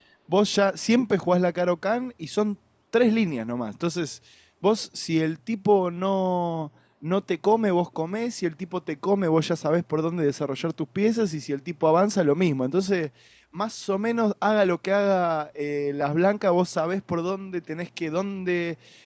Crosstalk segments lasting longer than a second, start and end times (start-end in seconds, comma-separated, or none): none